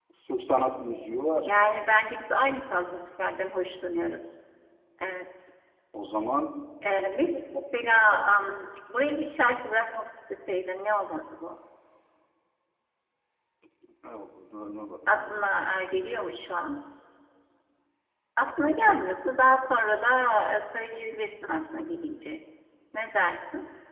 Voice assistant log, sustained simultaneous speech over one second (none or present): none